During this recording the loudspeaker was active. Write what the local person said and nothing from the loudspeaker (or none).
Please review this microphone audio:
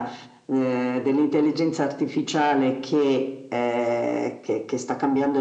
none